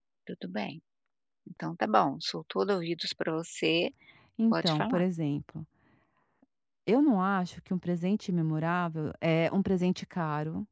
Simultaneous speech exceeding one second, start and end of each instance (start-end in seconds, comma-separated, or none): none